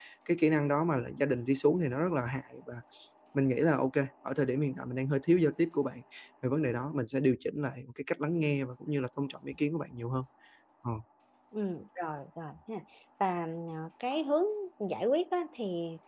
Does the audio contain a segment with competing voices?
No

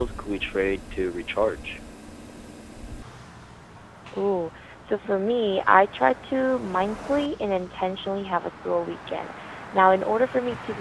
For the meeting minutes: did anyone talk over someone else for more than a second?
No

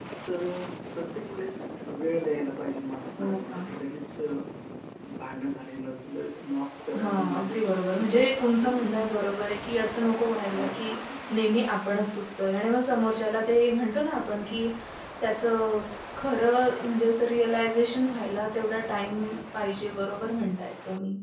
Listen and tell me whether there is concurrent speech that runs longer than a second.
Yes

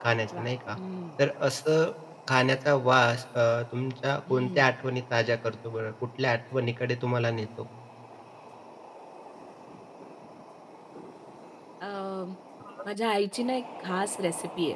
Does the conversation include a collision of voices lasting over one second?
No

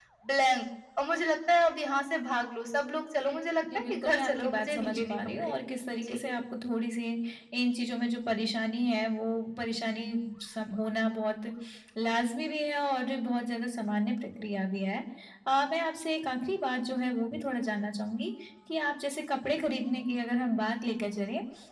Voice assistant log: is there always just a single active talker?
No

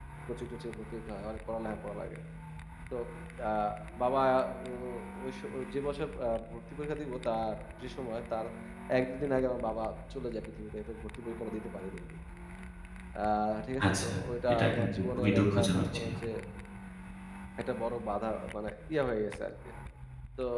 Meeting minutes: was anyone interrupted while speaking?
Yes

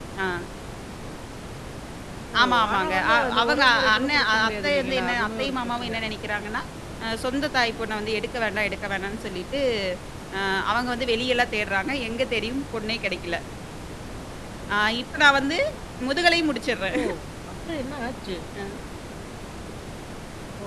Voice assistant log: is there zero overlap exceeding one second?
No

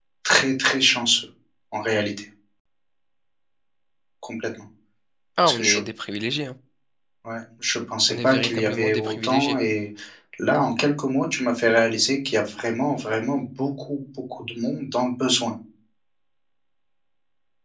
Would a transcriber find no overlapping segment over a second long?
No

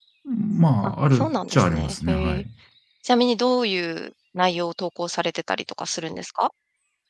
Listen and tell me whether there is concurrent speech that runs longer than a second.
Yes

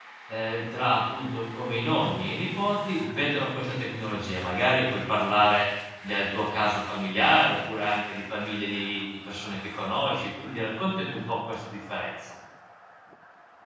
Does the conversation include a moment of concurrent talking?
No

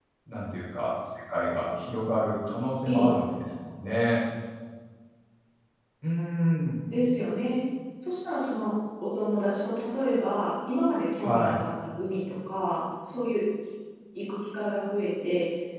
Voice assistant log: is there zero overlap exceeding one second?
Yes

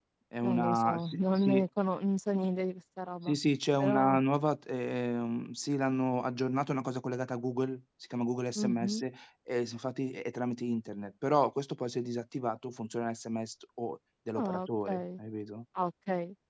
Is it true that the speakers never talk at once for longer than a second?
No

